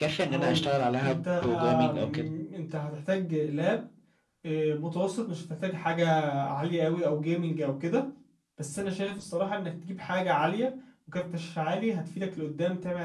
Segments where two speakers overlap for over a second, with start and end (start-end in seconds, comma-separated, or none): 1.0-2.3